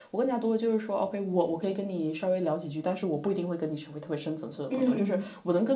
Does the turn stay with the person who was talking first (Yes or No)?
Yes